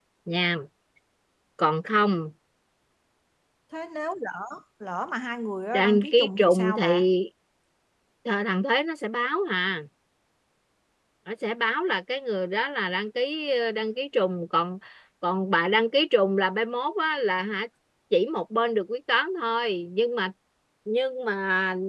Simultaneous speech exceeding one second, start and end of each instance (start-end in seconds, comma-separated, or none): 5.7-7.1